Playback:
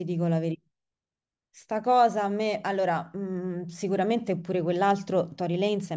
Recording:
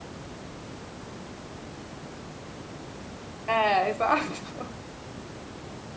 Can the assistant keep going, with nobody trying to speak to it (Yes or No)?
No